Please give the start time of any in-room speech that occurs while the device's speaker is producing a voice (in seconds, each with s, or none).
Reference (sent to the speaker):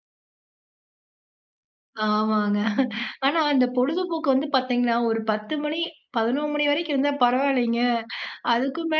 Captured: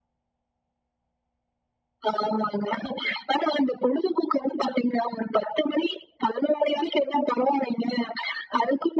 none